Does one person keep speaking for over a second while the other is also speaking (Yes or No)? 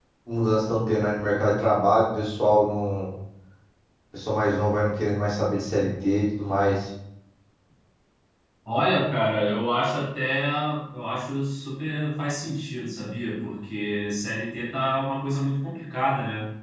No